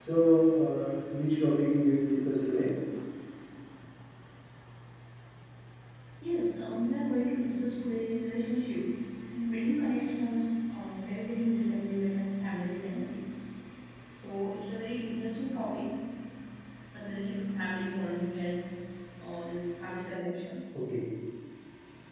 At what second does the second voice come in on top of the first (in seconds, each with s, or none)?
none